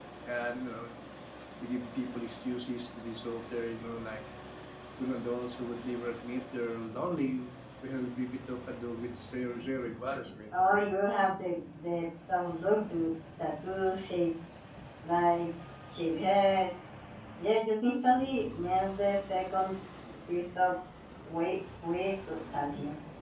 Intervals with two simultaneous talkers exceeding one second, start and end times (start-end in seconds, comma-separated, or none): none